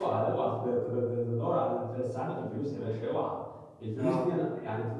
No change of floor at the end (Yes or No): Yes